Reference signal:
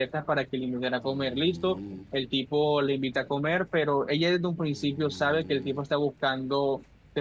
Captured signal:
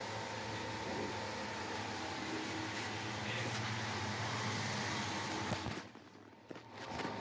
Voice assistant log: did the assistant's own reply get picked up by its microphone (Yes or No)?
No